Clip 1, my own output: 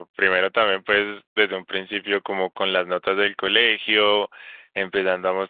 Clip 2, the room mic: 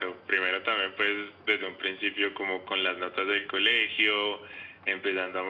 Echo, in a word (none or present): present